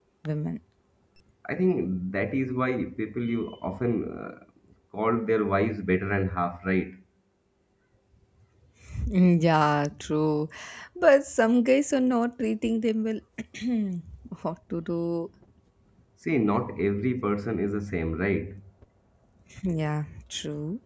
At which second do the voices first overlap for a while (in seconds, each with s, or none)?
none